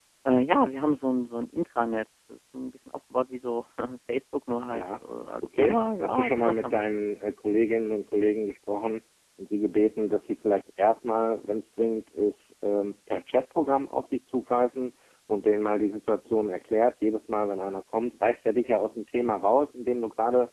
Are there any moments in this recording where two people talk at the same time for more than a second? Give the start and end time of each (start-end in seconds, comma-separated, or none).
5.6-6.8